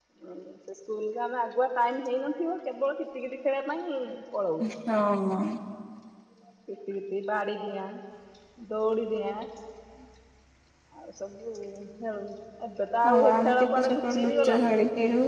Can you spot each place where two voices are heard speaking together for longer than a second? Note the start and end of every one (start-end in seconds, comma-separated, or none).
13.0-14.7